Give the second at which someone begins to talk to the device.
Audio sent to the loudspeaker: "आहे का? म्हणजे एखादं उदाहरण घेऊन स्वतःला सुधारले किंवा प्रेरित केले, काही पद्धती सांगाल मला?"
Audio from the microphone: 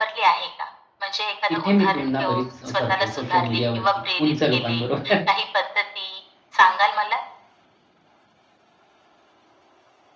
1.5 s

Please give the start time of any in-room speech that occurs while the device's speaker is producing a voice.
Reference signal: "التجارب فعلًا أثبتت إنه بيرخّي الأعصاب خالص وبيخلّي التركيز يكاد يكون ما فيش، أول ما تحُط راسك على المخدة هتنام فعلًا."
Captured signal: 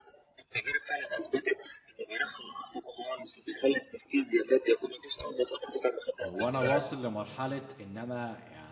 6.2 s

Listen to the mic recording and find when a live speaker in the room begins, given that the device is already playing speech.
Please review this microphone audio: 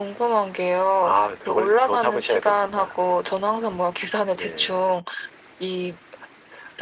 none

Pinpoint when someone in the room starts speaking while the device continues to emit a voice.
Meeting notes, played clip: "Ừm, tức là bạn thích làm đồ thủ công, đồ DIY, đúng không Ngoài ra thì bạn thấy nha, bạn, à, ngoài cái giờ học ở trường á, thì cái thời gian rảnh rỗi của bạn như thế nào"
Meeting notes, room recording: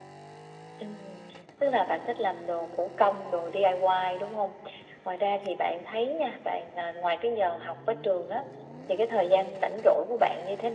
none

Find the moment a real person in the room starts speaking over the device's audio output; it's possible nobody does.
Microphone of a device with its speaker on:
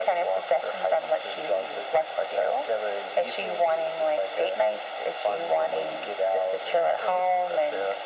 none

